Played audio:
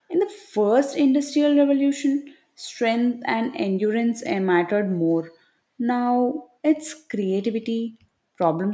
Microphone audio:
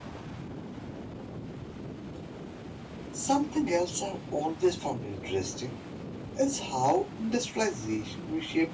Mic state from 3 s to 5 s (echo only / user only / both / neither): user only